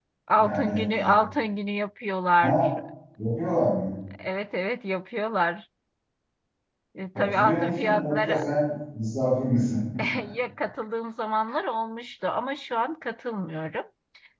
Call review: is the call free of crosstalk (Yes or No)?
No